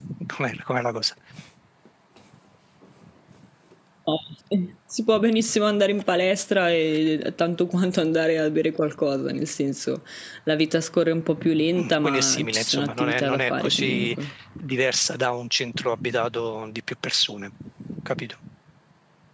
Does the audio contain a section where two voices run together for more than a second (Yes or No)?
Yes